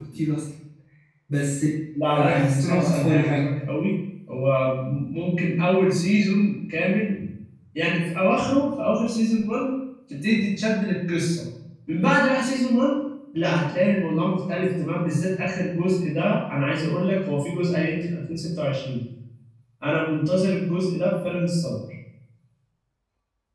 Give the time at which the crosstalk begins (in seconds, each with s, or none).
2.2 s